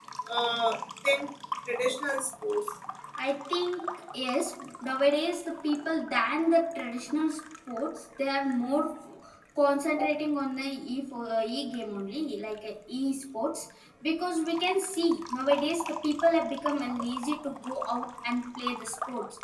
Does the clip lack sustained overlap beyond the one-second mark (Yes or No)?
Yes